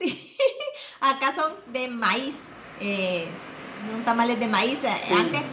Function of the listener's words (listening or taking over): listening